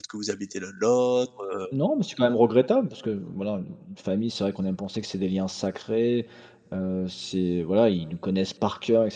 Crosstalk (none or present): none